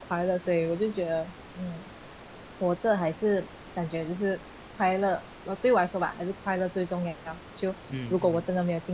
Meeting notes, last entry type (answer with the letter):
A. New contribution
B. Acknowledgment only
B